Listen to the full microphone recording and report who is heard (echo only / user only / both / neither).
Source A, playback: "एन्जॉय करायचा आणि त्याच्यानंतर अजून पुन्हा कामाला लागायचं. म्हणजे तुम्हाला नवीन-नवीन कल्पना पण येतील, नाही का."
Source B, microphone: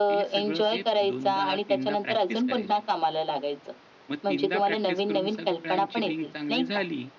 both